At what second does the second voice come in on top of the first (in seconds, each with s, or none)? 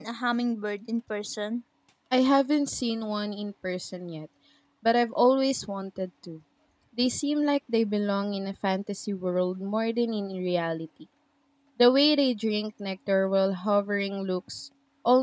none